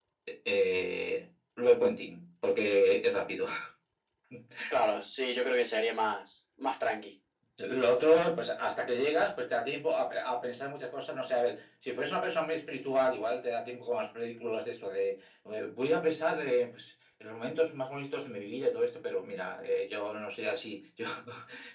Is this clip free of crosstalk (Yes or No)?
Yes